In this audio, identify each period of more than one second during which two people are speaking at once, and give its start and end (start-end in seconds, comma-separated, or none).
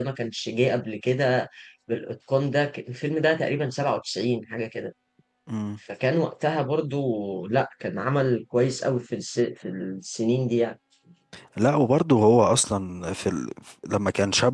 none